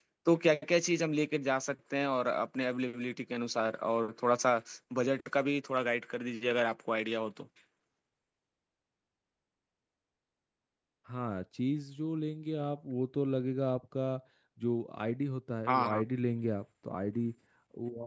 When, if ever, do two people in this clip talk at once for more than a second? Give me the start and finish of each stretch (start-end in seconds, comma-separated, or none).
none